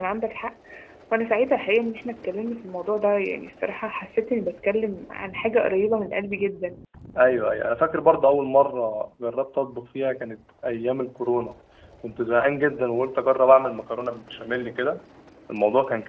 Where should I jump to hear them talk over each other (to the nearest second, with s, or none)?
none